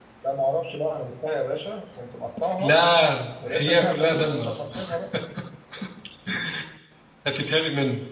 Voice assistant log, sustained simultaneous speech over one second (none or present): present